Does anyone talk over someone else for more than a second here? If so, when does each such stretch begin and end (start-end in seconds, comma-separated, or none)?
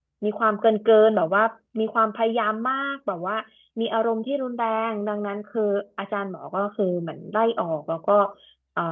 none